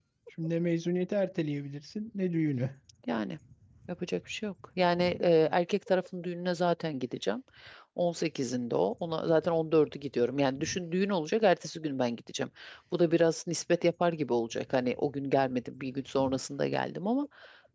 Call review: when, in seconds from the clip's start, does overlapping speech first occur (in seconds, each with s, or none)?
none